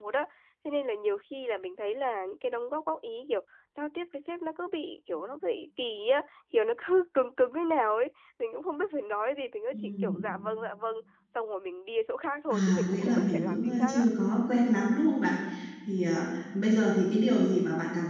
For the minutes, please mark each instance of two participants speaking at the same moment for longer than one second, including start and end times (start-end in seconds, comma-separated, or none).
12.5-14.0